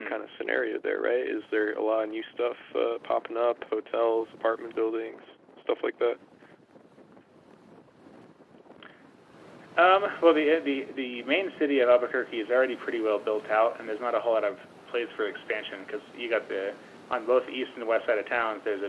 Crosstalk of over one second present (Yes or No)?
No